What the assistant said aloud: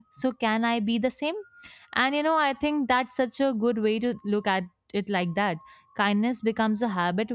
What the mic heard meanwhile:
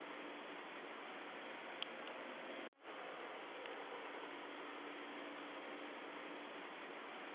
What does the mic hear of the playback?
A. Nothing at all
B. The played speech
A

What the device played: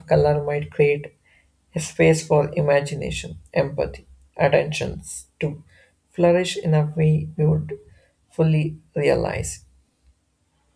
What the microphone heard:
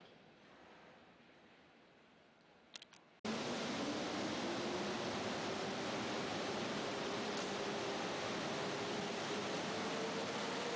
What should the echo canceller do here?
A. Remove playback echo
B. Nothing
B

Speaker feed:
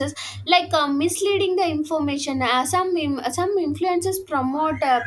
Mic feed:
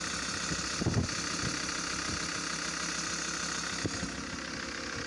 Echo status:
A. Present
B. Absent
B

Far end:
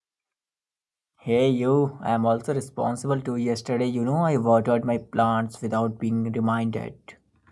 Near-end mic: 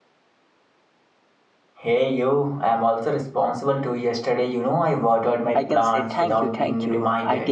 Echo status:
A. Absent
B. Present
B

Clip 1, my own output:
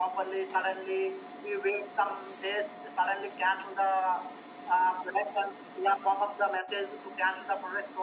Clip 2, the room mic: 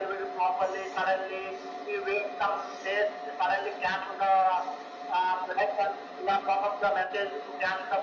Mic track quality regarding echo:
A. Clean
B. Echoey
B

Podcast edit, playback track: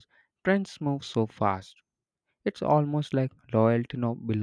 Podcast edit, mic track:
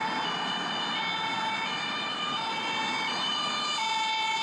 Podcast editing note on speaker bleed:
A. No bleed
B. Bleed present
A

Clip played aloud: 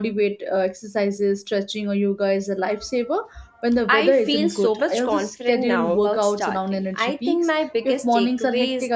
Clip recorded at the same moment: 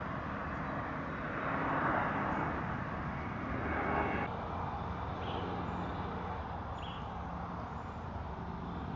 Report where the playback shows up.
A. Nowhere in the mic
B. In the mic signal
A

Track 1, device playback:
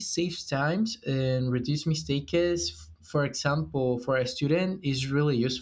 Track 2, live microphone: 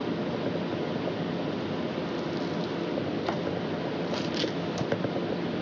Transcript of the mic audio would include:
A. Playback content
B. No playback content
B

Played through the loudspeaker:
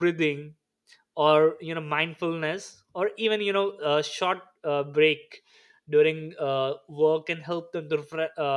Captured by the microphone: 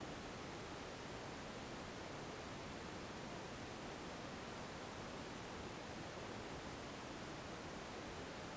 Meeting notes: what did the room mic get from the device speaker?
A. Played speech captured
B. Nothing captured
B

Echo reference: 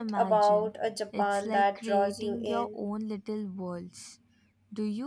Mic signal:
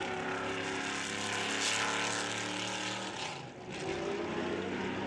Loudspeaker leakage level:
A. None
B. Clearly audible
A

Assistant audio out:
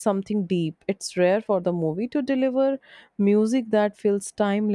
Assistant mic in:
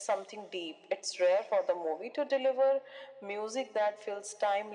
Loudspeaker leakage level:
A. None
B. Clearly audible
B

